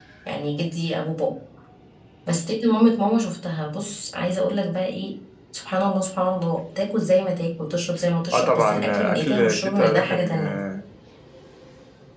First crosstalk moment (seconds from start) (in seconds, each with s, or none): 8.3 s